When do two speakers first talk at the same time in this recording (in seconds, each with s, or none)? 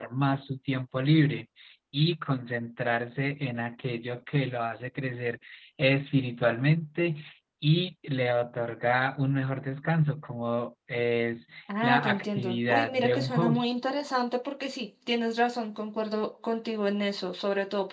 11.7 s